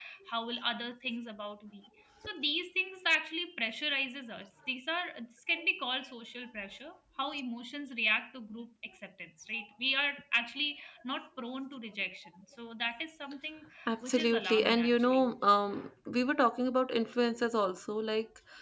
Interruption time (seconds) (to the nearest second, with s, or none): 14 s